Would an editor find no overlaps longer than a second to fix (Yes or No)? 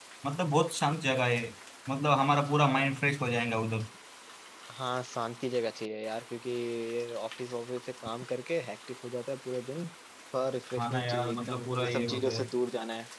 No